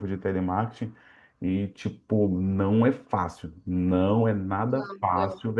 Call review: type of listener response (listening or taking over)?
listening